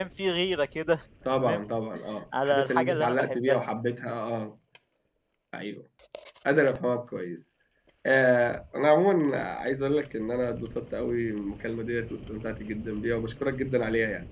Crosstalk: present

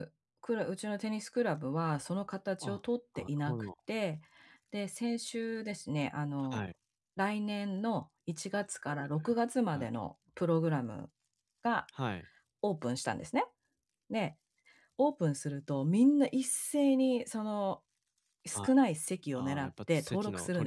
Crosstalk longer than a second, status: present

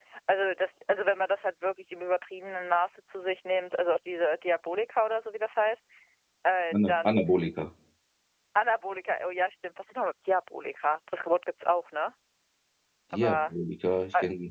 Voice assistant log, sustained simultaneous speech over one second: none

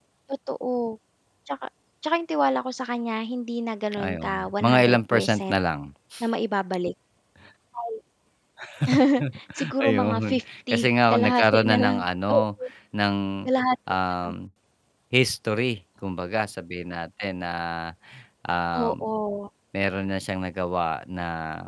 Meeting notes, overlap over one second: present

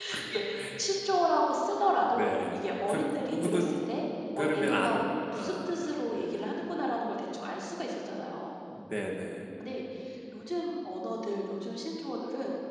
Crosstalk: present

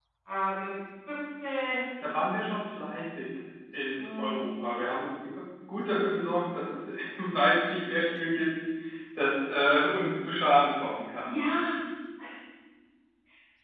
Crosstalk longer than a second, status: none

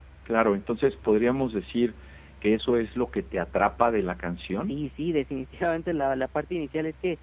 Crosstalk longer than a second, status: none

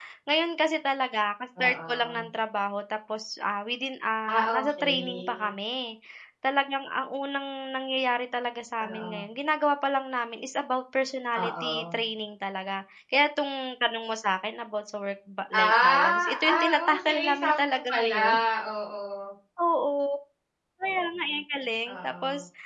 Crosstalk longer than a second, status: present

